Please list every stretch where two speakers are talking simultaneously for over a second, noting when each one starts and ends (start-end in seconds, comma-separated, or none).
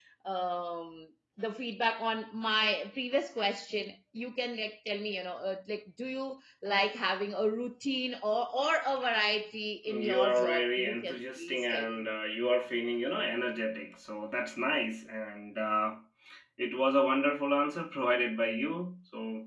9.9-12.0